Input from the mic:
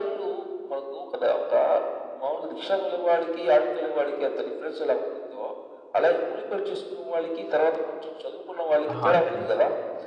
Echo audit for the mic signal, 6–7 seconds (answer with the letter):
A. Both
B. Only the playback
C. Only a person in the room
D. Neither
B